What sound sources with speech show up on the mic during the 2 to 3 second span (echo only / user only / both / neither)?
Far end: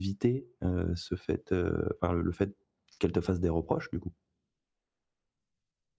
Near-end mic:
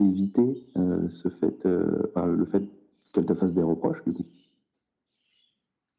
echo only